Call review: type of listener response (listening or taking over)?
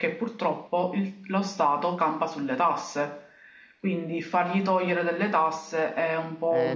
taking over